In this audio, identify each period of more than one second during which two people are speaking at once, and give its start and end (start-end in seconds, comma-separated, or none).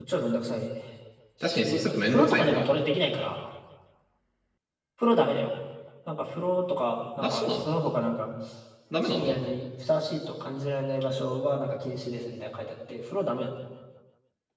1.4-2.7